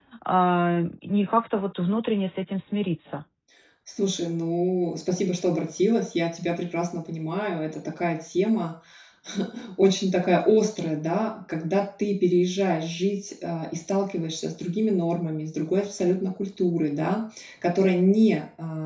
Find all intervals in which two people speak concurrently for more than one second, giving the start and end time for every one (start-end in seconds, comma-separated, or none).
none